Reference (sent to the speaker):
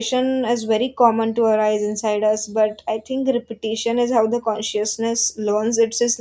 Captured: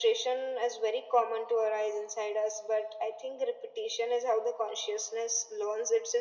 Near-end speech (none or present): none